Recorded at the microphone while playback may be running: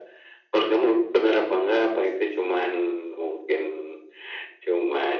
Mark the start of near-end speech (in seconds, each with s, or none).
none